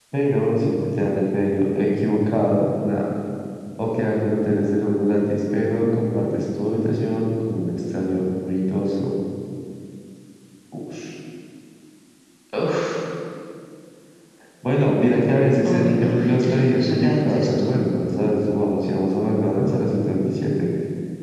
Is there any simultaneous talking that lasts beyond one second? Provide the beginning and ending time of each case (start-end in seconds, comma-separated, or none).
15.6-17.7